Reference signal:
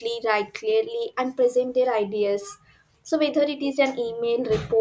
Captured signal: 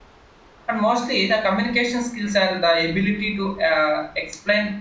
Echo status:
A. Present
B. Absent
B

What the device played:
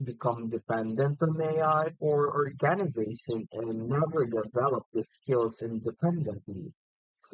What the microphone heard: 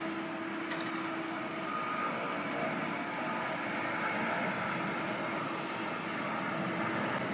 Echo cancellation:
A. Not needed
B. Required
A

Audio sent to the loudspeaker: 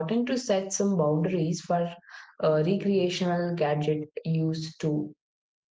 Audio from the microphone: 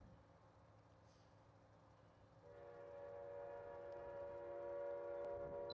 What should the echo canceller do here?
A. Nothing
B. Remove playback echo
A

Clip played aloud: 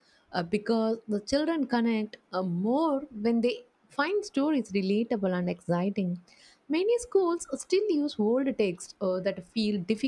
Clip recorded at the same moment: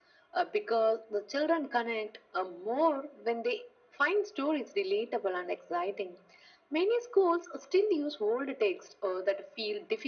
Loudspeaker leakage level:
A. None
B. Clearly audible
B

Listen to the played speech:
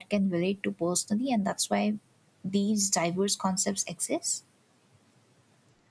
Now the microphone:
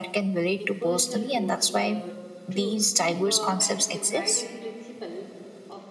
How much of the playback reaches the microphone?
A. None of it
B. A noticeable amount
B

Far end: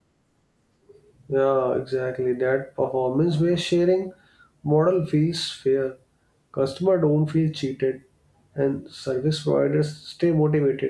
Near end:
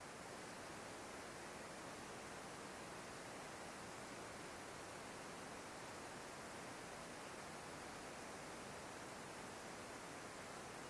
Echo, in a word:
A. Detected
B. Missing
B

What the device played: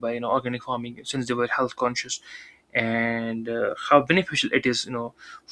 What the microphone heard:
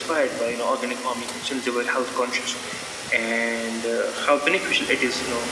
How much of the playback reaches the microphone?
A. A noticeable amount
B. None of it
A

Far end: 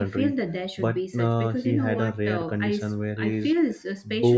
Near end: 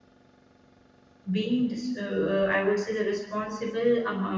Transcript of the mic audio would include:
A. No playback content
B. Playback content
A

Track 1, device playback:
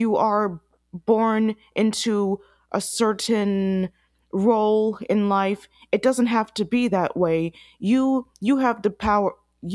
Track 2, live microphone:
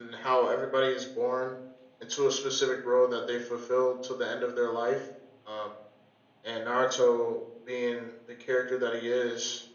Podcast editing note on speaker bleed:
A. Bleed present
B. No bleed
B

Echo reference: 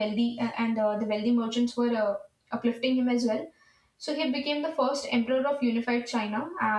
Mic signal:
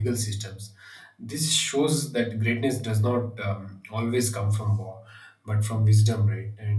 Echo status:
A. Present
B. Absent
B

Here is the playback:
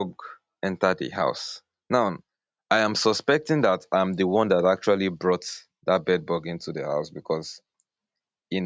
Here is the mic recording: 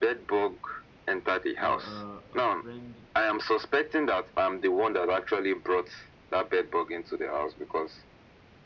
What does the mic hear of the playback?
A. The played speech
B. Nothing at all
A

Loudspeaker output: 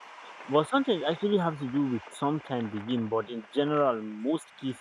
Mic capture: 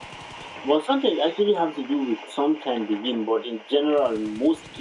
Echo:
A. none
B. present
B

